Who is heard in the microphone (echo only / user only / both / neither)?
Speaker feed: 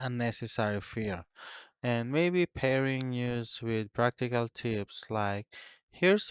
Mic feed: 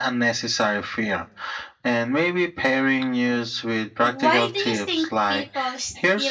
both